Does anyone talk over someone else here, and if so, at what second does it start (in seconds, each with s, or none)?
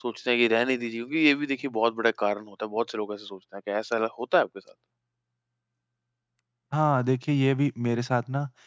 none